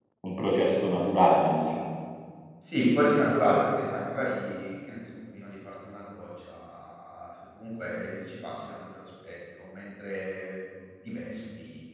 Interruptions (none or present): none